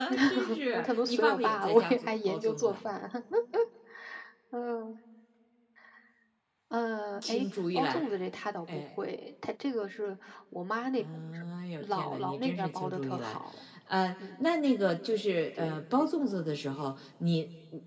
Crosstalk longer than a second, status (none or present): present